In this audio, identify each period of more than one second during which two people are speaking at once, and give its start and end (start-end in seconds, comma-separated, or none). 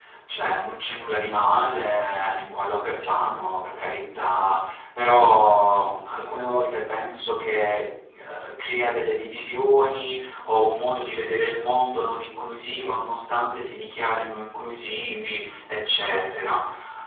none